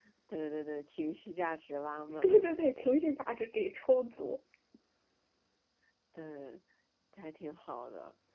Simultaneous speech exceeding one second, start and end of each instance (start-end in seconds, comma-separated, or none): none